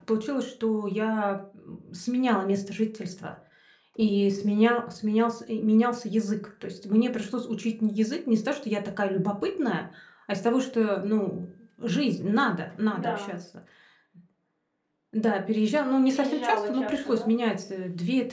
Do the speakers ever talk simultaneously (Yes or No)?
Yes